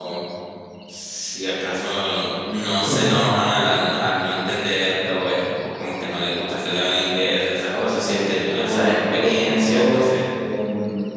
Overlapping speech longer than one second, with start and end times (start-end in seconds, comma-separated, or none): 8.6-10.0